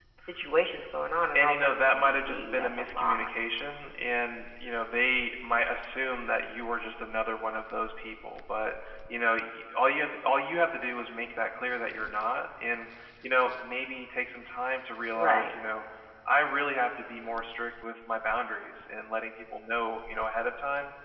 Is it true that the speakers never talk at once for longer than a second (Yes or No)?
No